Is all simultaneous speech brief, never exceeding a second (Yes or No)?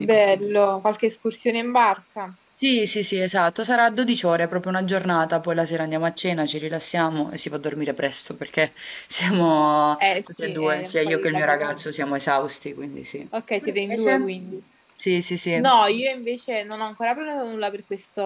No